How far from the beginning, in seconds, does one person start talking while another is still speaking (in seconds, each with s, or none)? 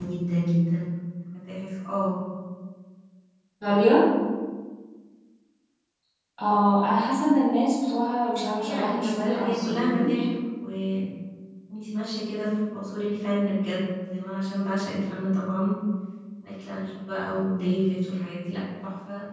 8.6 s